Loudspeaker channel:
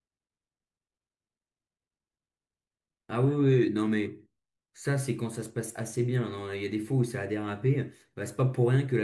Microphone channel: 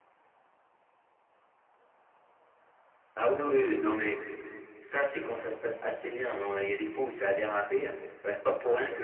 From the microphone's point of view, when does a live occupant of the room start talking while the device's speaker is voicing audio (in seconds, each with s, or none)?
none